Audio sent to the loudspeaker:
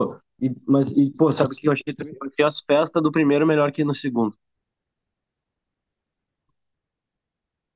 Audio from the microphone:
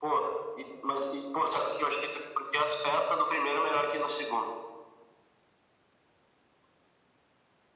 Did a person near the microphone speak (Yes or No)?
No